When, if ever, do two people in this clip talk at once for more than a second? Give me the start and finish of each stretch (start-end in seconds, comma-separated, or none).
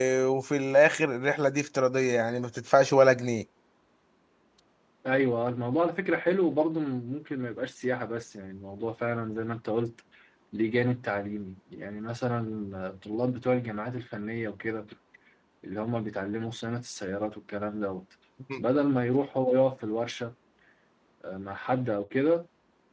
none